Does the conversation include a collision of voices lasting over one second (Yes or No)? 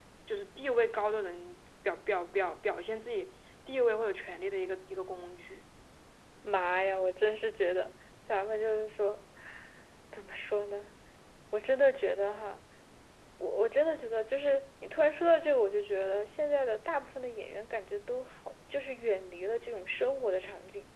No